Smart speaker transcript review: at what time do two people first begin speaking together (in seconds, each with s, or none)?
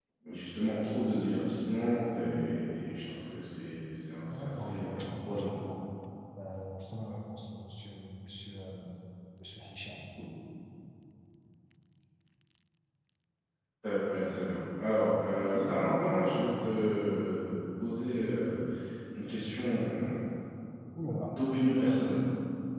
4.3 s